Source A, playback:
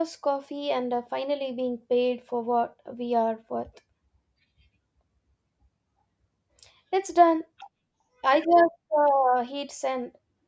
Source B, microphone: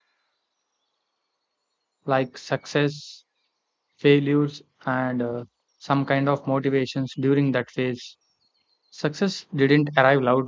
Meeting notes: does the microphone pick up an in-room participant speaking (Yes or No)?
Yes